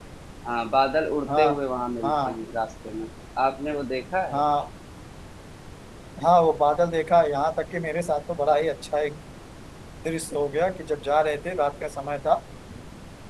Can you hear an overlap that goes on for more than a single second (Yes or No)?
No